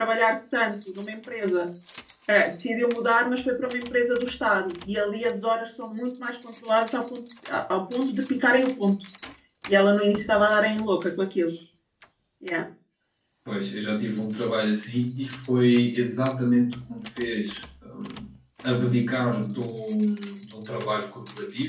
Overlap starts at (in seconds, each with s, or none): none